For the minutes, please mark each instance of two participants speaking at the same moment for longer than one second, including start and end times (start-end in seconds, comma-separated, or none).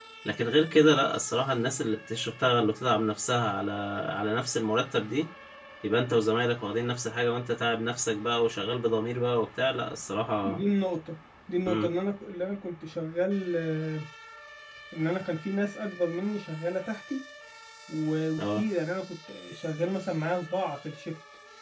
none